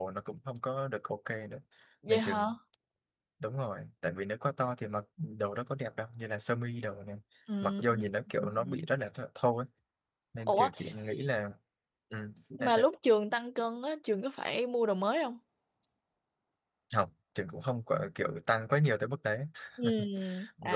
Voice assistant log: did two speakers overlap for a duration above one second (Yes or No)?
No